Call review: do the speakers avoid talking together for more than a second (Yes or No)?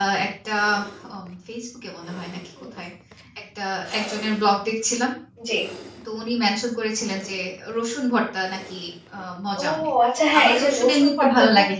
No